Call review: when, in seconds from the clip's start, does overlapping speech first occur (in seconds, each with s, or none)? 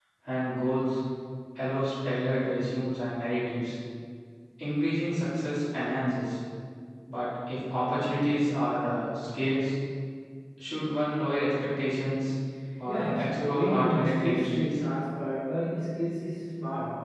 12.9 s